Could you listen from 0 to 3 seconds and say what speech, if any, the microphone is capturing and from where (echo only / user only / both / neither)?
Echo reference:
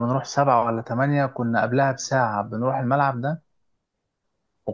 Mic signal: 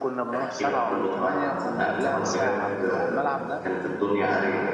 both